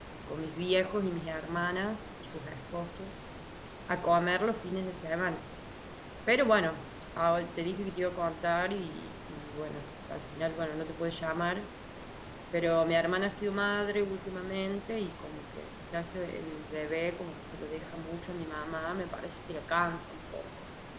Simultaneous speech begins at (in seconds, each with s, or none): none